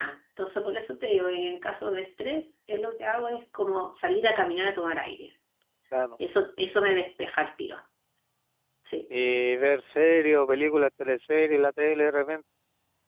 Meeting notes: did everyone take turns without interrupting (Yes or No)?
Yes